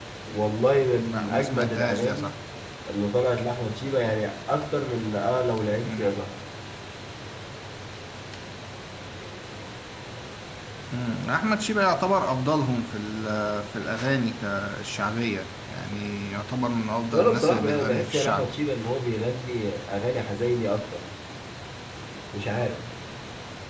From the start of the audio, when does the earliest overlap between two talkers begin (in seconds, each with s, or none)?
1.0 s